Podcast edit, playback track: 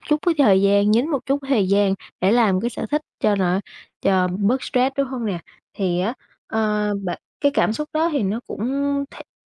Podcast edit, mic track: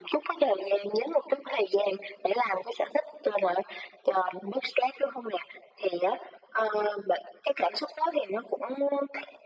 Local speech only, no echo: none

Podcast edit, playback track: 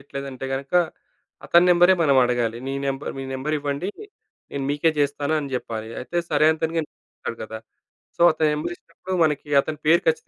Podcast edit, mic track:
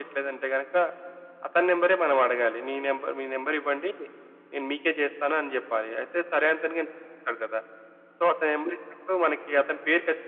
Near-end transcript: none

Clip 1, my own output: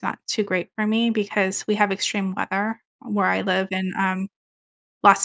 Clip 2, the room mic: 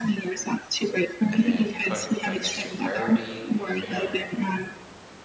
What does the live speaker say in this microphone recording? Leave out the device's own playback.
and then put like next to a priority you know

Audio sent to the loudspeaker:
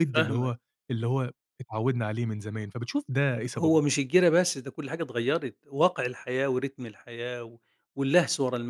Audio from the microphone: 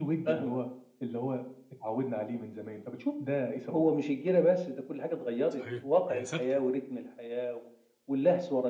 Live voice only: صحيح، هي ثابتة،

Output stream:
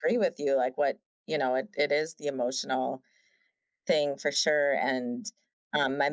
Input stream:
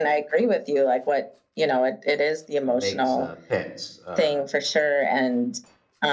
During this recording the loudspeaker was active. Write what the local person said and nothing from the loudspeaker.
uh, makes uh, pets uh,

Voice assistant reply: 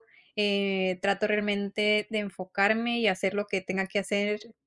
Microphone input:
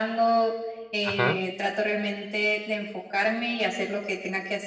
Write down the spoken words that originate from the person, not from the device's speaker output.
ajá.

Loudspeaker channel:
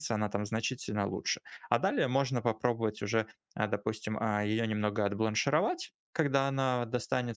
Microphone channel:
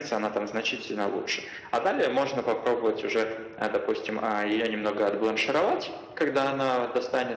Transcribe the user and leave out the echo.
none

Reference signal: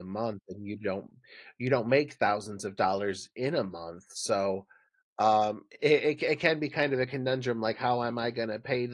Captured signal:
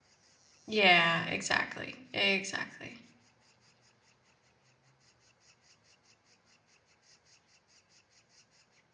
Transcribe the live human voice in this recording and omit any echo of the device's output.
Yeah. Exactly. Exactly.

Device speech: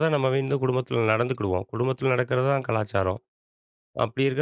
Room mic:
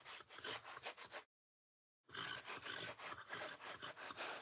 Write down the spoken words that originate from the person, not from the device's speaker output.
none

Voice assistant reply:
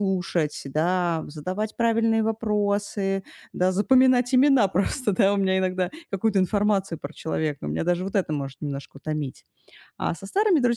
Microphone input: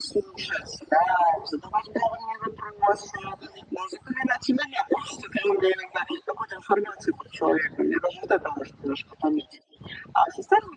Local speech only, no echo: none

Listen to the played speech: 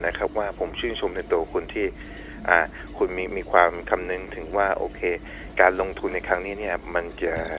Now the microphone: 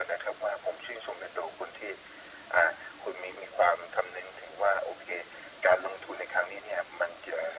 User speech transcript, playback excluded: none

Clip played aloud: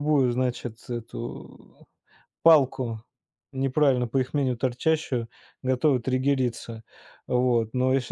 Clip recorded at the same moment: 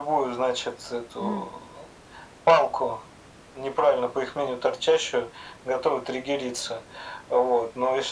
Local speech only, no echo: Мгм.

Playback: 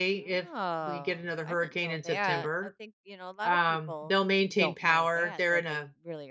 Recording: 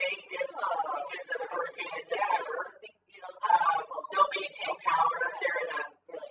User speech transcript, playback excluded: none

